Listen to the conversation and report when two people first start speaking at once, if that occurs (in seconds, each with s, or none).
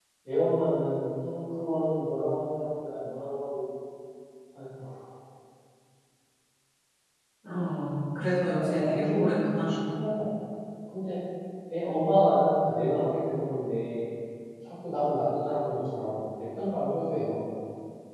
8.4 s